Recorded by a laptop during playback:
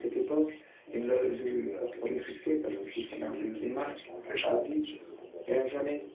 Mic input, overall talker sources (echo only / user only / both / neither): both